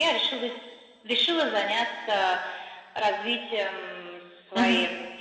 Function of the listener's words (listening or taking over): listening